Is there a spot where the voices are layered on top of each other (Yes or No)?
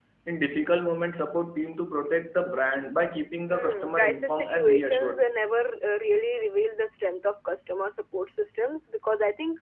Yes